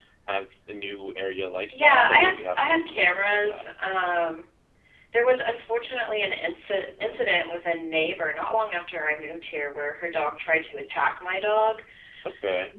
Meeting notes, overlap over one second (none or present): present